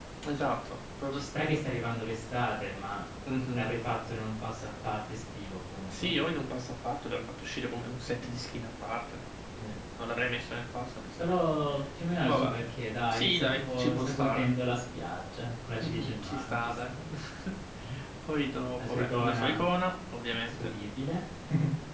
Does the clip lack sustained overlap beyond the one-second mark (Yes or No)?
No